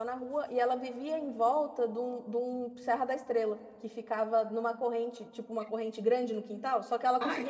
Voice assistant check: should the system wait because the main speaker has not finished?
Yes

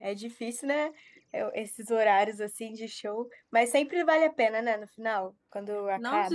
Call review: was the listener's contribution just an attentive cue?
No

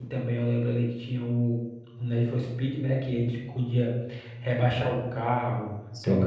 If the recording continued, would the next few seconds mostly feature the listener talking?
No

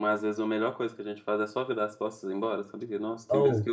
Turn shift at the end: Yes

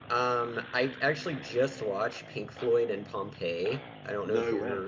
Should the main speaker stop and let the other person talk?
No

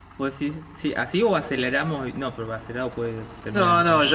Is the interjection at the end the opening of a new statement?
Yes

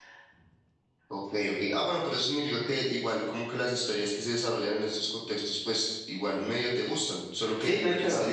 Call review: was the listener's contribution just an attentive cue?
No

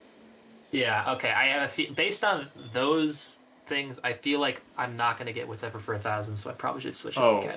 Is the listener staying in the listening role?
No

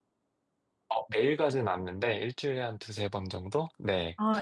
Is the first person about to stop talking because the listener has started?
Yes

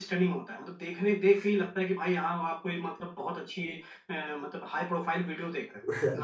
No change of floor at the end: No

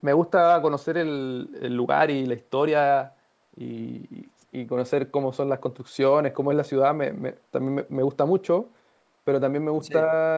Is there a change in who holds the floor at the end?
No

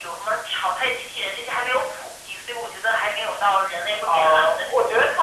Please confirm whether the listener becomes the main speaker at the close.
Yes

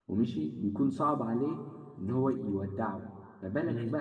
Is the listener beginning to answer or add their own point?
No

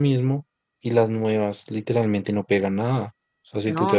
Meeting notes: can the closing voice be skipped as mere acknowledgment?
Yes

